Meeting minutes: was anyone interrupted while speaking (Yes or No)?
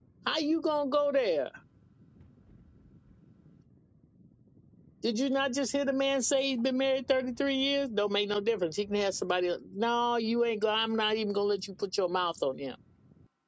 No